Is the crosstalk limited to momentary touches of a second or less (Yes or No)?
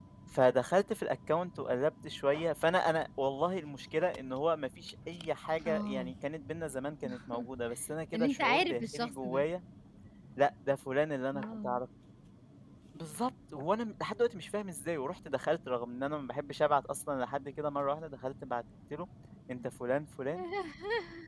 No